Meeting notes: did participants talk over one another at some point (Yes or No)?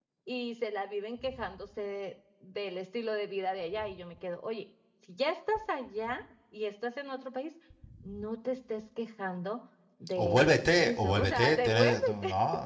Yes